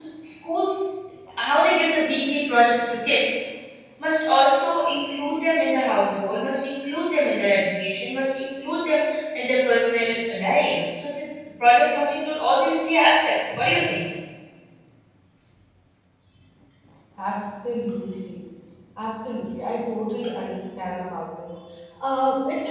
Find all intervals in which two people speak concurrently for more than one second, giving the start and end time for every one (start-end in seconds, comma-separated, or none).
none